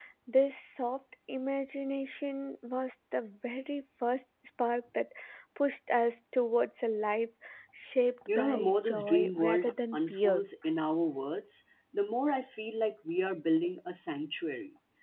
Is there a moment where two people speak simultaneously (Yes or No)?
Yes